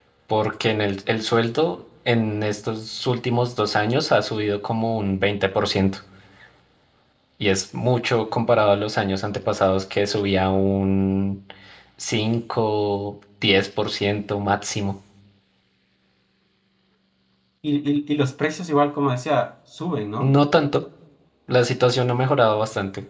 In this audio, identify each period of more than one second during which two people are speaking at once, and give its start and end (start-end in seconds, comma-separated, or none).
none